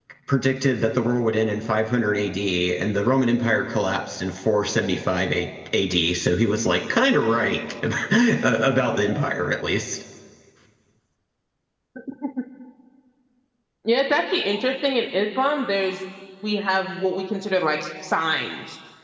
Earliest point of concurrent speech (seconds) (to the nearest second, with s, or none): none